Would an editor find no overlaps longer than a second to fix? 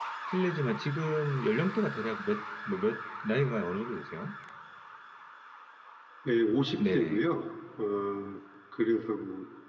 Yes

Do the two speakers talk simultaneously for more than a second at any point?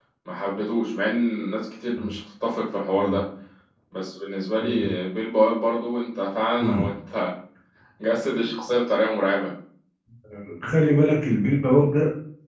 No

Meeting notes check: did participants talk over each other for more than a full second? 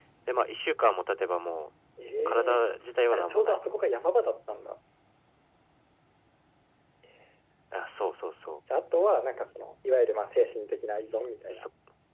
No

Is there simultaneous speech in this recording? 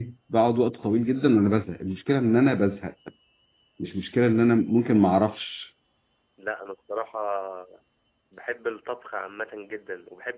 No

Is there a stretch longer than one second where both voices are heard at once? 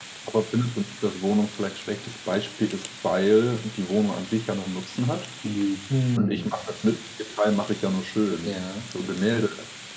No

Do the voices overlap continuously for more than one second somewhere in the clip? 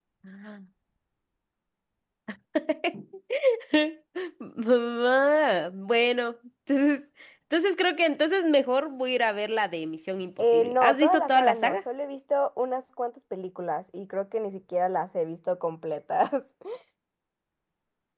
Yes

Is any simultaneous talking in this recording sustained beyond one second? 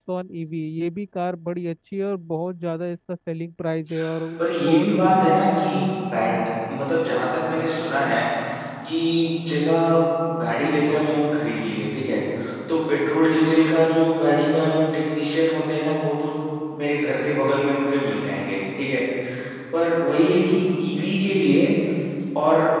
Yes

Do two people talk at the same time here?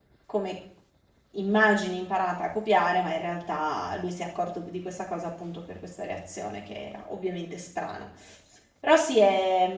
No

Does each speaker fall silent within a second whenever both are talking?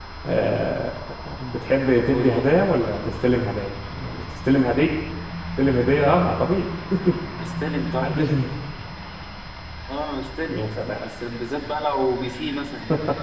Yes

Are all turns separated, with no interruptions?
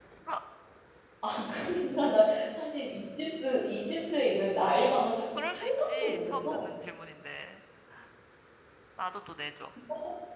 No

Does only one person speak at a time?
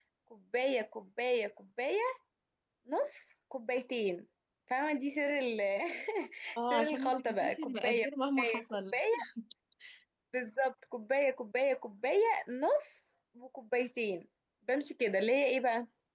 No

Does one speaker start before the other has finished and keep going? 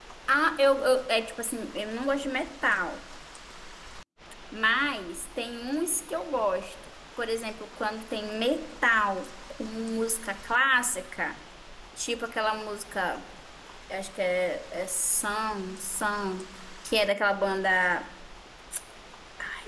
No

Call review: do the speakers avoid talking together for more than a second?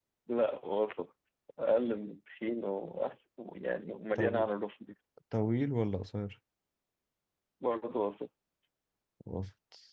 Yes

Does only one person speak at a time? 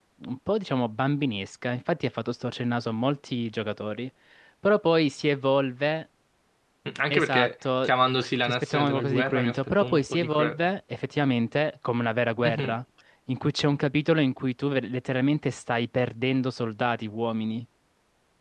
No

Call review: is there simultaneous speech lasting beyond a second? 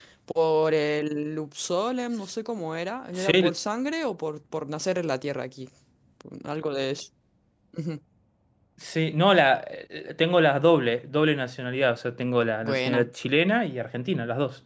No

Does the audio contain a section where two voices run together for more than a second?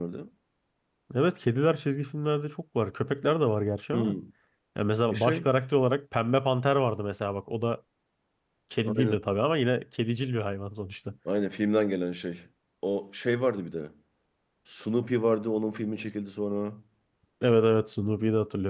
No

